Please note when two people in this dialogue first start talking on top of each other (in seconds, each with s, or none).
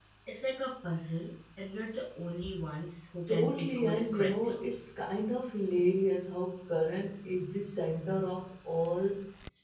3.3 s